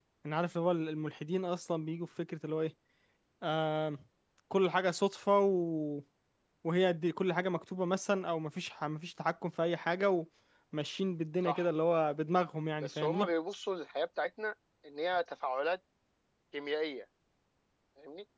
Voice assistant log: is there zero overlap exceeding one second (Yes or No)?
Yes